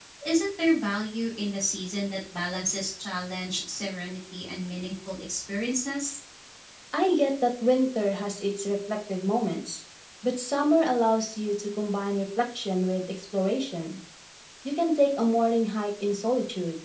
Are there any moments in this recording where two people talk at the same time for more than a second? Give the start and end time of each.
none

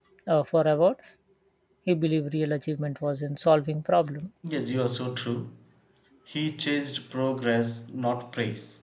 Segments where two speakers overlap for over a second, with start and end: none

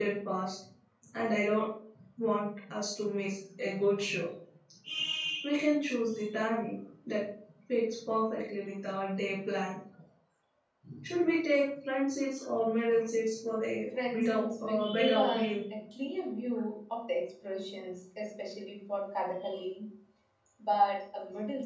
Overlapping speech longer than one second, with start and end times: 14.1-15.6

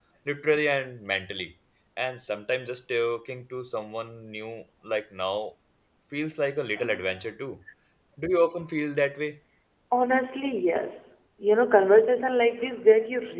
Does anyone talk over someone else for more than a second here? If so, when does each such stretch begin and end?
none

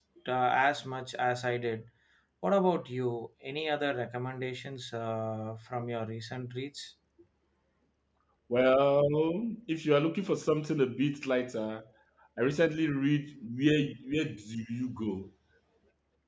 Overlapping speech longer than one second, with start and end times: none

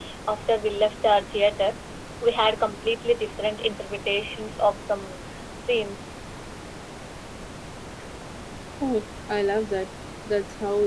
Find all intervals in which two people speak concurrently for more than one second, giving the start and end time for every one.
none

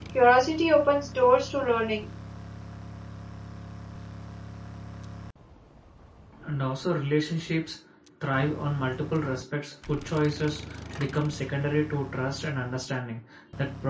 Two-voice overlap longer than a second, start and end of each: none

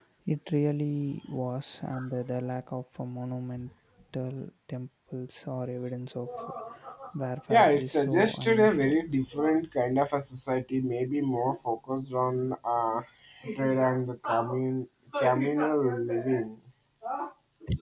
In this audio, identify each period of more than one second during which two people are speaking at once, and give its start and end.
7.5-8.9

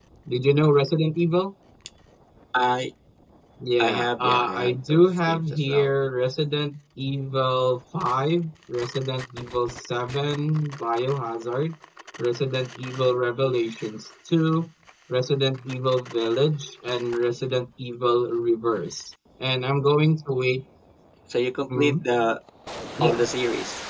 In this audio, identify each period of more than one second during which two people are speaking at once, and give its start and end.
3.8-5.9

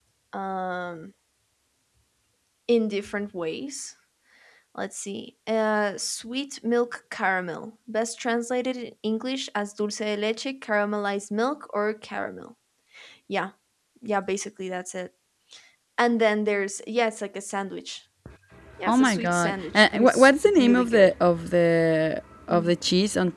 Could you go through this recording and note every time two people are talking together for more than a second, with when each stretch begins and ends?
18.8-21.1

